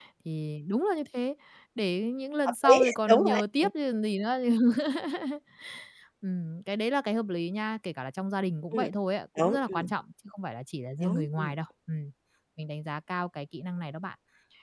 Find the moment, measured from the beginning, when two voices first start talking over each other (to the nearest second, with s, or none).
2 s